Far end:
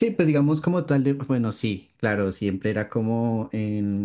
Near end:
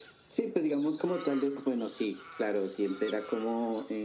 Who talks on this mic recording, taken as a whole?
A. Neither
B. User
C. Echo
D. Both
C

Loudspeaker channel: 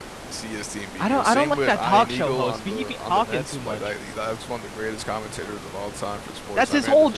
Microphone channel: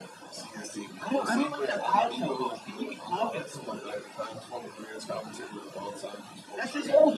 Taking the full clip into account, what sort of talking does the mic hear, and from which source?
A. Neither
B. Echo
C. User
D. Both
B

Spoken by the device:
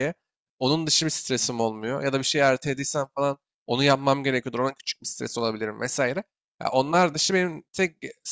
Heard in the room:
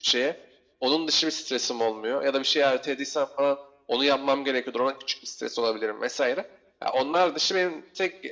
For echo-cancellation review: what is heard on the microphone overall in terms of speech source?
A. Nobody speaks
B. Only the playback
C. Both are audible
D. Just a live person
B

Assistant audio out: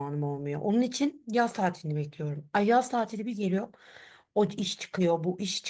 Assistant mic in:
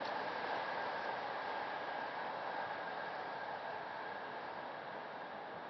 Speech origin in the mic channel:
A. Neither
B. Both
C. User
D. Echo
A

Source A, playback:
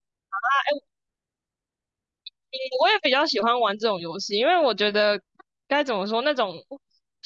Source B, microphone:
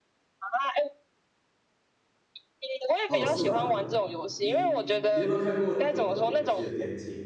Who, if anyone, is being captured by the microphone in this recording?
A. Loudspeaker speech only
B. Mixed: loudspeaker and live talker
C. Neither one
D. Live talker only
B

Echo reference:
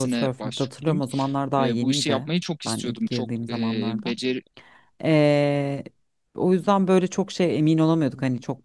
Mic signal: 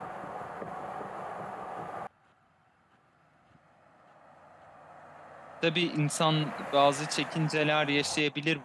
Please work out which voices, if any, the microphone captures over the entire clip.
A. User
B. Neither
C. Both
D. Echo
A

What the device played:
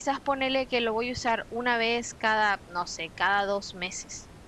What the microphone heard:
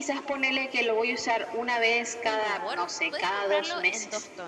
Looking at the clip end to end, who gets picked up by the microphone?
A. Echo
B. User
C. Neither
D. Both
D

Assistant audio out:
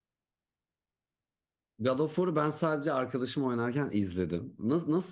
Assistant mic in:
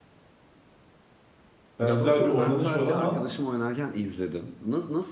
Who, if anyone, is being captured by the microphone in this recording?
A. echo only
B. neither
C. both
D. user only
C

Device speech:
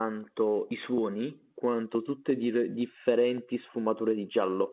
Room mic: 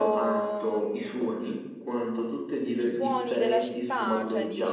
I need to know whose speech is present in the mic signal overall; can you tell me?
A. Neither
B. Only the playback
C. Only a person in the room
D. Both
D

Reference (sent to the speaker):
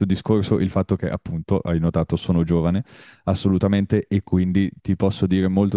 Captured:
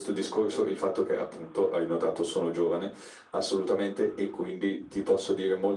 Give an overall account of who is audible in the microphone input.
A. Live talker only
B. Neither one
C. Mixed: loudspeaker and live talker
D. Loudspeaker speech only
D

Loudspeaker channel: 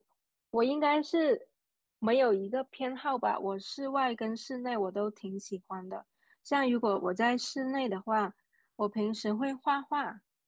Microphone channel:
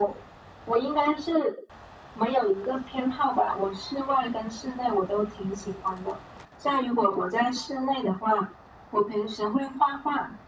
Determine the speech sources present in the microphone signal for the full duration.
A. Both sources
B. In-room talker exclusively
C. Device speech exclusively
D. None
C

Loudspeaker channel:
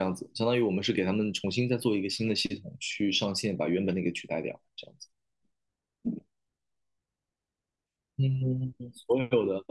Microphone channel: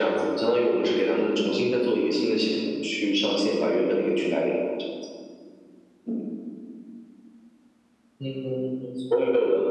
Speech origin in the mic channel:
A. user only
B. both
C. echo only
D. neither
C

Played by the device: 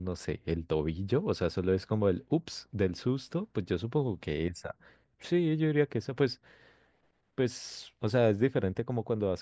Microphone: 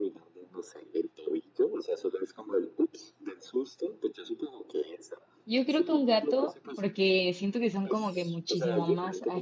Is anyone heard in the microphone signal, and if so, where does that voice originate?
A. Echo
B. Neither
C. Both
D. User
C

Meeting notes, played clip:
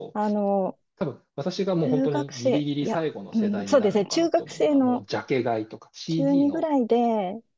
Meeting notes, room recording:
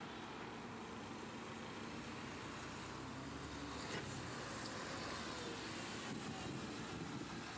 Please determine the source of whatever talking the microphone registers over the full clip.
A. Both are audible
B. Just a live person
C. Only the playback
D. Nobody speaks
D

